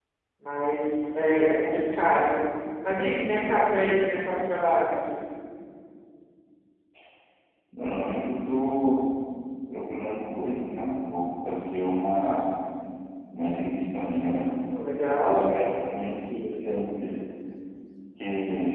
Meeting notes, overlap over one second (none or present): none